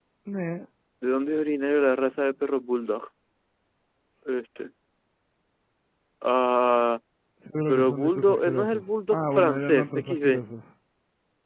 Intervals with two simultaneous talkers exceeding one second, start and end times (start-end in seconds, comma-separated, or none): 7.7-10.4